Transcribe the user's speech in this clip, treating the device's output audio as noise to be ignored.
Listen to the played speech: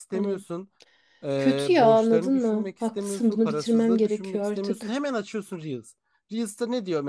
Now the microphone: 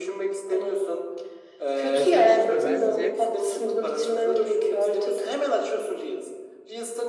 Ya sen şimdi bence

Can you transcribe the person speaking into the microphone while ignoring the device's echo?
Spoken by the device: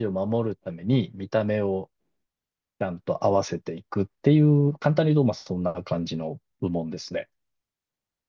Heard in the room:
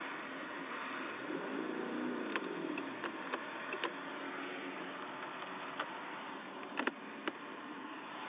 none

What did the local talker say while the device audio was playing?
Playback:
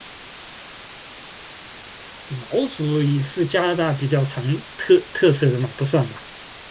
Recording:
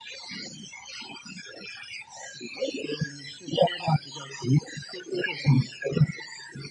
none

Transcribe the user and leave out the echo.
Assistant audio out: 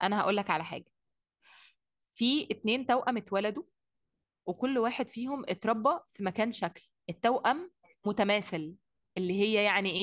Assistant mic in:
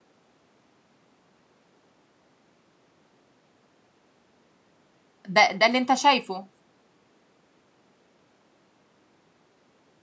ده ده اللي أنت شايفه

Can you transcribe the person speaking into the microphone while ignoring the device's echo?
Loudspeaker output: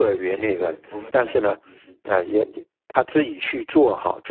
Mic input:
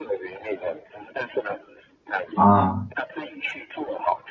啊，

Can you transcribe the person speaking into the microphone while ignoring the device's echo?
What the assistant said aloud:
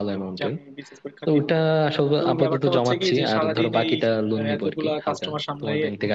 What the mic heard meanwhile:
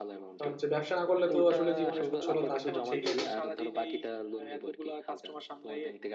কারণ হচ্ছে ব্যবসা না করলে তো আসলে জীবনে সচ্ছলতা আসে না সেই লেভেলে

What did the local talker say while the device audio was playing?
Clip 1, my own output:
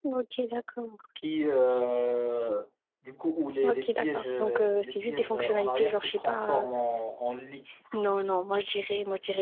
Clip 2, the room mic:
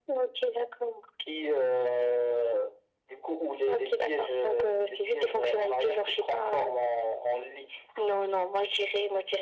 none

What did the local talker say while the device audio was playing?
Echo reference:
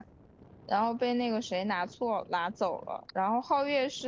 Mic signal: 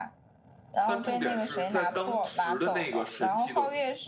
但重点是在当时的那个神奇的

